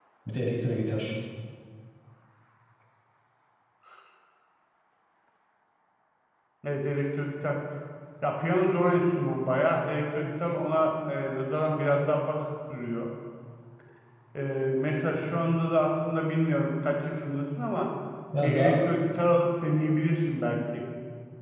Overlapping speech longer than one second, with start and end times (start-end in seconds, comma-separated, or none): none